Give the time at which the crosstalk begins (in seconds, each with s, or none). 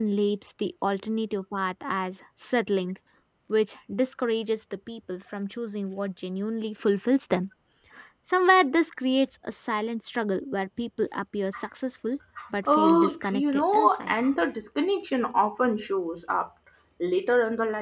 12.7 s